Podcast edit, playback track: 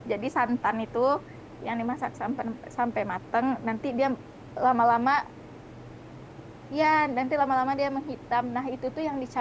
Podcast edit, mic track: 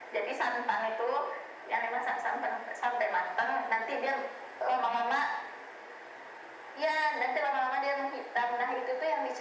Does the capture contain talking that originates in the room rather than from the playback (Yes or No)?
No